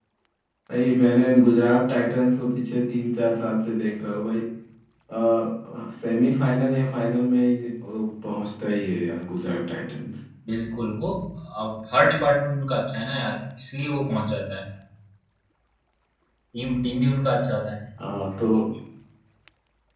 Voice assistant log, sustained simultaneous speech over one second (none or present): none